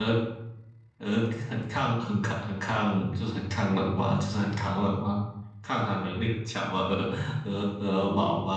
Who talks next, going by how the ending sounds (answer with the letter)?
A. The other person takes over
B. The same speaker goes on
A